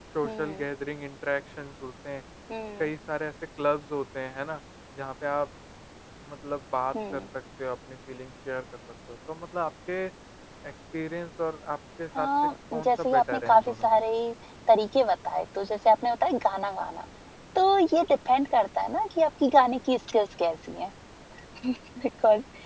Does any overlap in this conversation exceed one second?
Yes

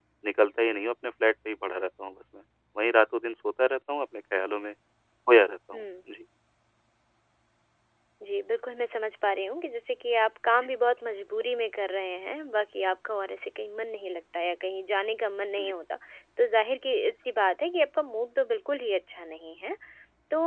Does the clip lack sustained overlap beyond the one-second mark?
Yes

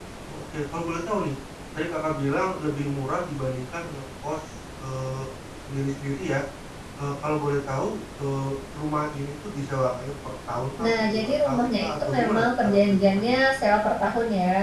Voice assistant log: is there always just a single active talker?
No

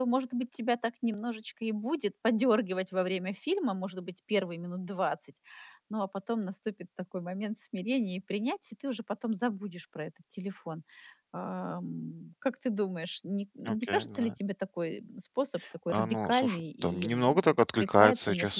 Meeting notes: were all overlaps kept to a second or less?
No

